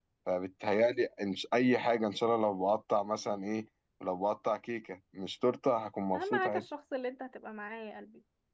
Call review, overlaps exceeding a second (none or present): none